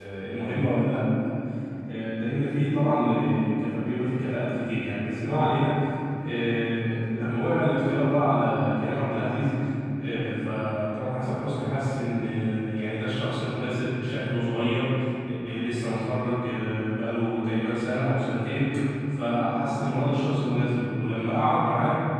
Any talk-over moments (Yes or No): No